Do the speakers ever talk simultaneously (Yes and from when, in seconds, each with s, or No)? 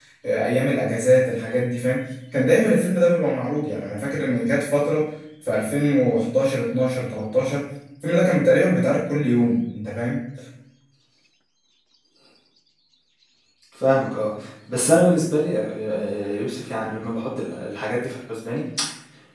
No